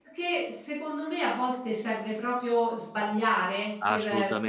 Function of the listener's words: listening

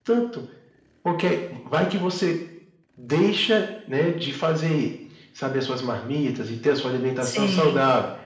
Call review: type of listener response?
listening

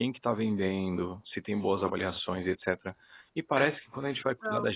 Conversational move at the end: listening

